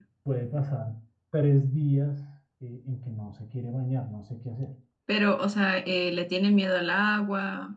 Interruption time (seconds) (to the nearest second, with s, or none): none